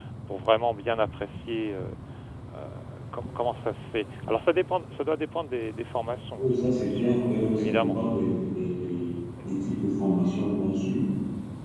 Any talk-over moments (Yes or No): Yes